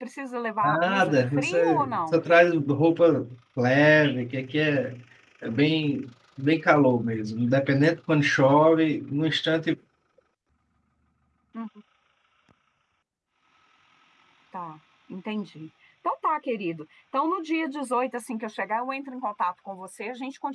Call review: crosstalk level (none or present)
present